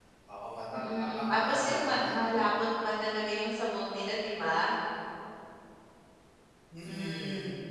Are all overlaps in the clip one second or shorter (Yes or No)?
No